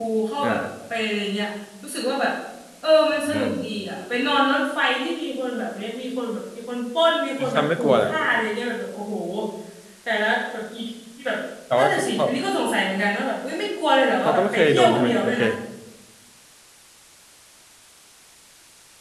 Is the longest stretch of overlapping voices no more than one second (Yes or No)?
No